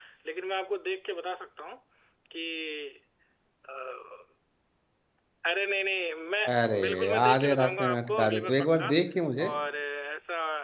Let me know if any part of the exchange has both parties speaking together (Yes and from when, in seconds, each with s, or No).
Yes, from 6.5 s